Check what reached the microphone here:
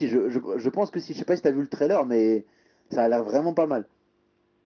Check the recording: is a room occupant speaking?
No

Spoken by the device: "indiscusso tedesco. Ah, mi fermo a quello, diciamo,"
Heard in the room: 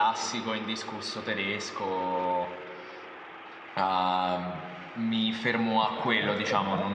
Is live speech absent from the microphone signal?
No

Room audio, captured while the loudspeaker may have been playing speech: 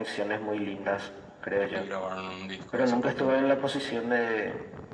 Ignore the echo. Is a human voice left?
Yes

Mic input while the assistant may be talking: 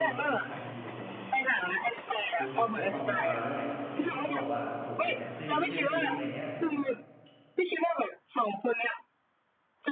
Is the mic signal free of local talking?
No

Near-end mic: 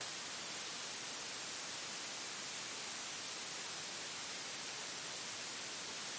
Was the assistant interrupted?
No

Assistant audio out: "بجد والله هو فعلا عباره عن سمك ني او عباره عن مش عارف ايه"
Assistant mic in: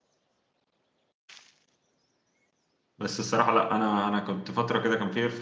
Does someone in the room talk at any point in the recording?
Yes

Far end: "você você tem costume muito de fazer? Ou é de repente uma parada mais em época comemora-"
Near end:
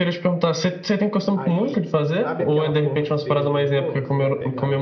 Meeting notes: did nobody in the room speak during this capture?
No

